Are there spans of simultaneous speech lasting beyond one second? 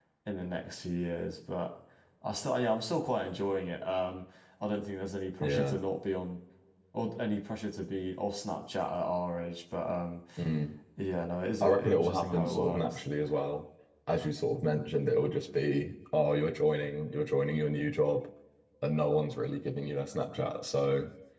Yes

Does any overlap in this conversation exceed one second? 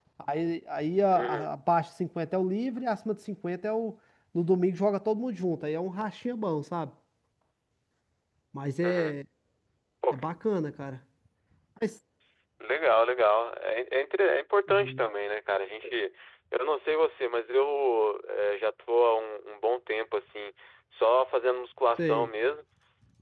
No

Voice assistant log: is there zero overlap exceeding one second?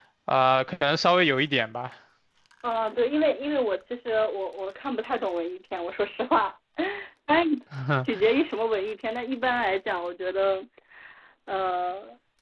Yes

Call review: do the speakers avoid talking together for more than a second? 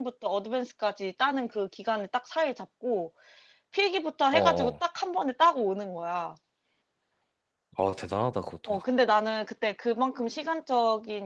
Yes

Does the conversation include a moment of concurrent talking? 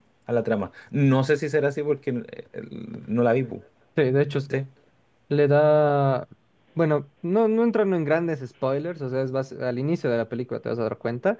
No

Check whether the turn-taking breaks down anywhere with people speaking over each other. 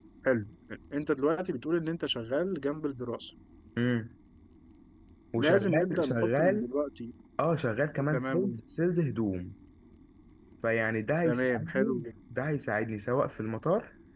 Yes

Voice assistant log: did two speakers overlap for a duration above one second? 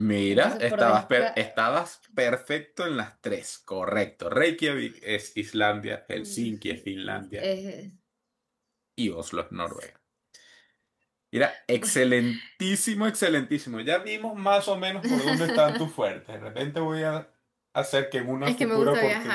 Yes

